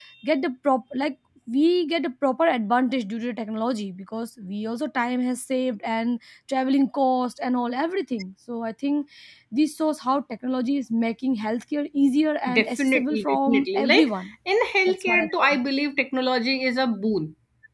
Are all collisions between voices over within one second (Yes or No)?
No